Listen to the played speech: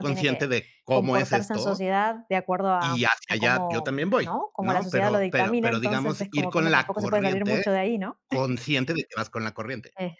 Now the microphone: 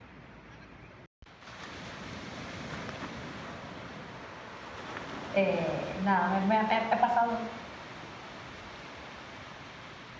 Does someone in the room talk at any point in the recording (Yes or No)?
Yes